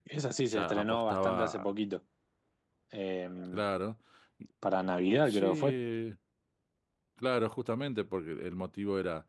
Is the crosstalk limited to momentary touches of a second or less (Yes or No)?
No